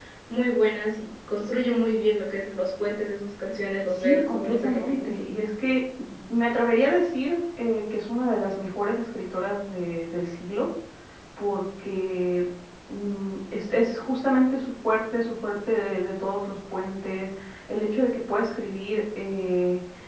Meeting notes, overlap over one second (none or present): present